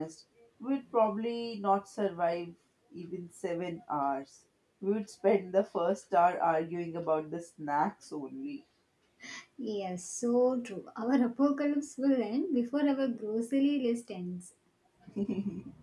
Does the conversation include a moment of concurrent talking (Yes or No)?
No